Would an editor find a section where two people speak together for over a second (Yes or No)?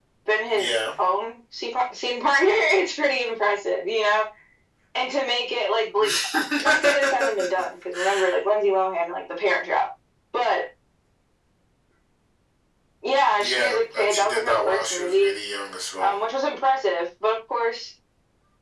Yes